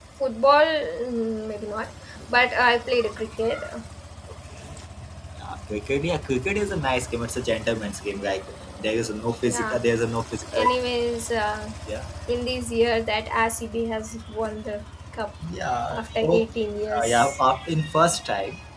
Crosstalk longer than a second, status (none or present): none